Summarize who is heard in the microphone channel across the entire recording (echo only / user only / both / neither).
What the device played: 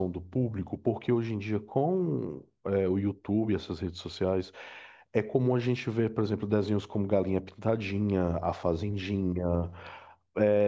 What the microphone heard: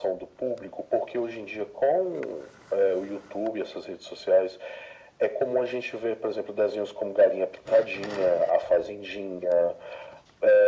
echo only